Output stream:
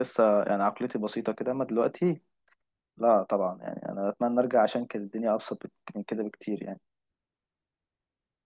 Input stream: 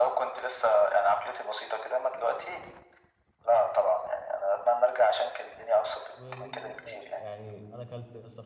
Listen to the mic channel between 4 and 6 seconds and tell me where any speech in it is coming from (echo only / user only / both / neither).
echo only